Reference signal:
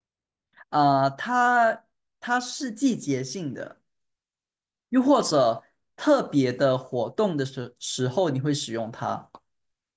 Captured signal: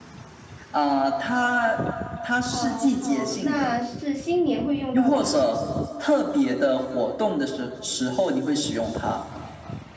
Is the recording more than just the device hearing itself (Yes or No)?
Yes